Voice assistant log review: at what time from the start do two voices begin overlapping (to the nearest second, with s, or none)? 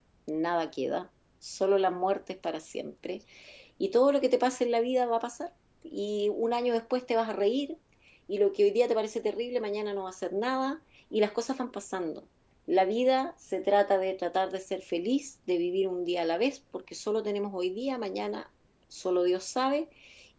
none